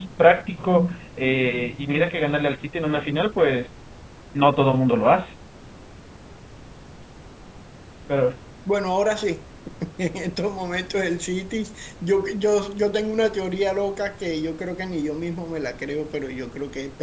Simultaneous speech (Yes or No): No